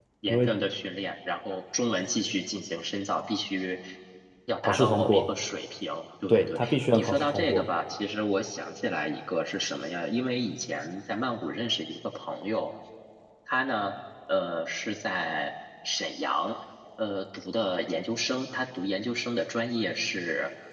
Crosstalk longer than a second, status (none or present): present